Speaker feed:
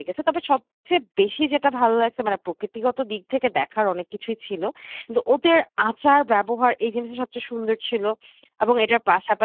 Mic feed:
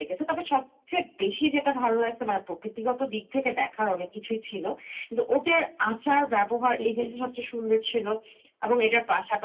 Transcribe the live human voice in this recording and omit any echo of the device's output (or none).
হুম, হুম।